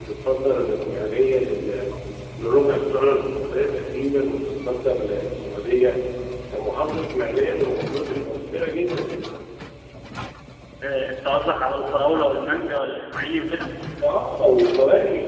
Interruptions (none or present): none